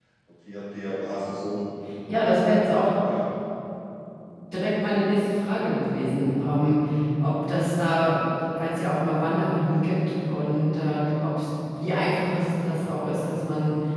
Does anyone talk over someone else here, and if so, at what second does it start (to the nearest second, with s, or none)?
none